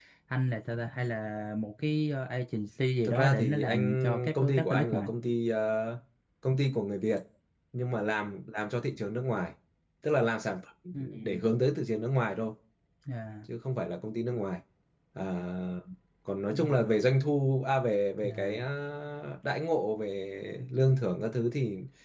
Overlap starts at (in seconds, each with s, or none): 3.0 s